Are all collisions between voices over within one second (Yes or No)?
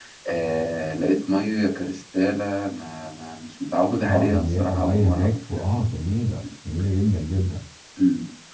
No